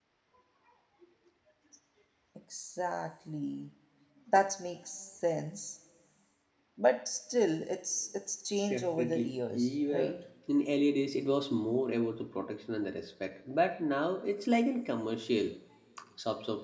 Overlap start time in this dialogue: 8.7 s

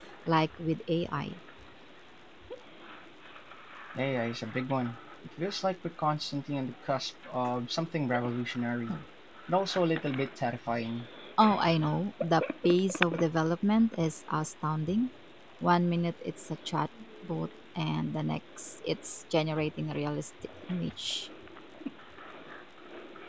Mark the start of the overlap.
none

